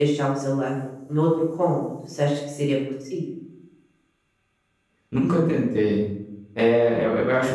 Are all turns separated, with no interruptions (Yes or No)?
Yes